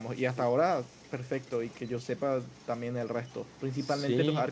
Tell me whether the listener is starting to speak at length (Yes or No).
No